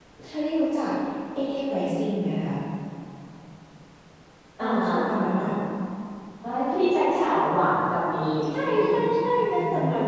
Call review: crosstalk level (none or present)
present